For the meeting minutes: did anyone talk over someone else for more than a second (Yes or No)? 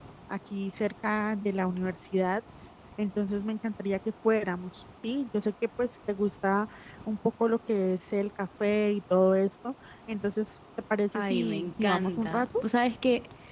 Yes